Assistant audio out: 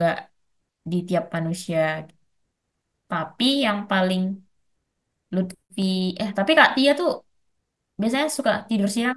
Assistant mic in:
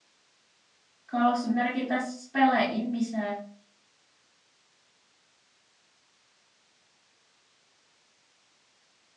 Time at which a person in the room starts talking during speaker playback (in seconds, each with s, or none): 1.1 s